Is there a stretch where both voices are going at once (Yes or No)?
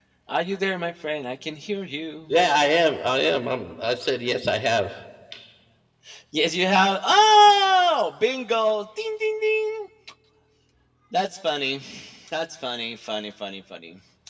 No